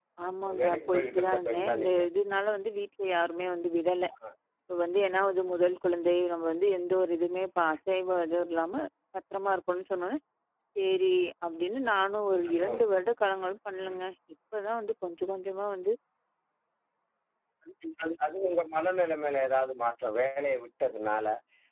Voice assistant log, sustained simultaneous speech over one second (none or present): present